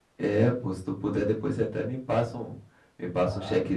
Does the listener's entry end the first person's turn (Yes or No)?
Yes